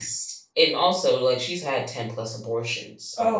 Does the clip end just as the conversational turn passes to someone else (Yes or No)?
Yes